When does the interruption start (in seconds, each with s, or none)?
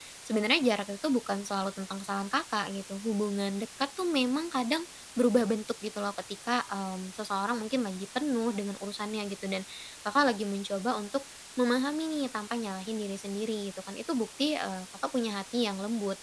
none